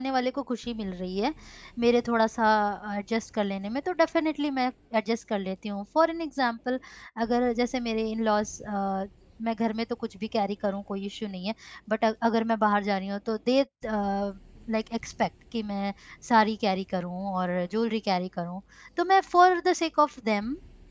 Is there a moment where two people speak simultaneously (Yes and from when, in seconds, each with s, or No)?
No